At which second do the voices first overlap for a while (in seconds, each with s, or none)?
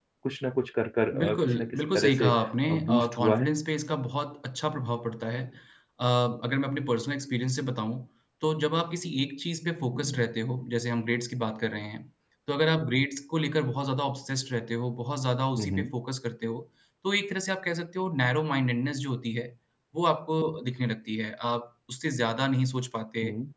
1.2 s